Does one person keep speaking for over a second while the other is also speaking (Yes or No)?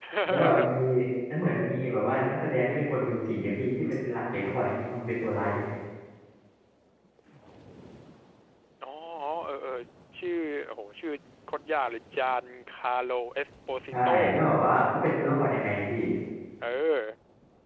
No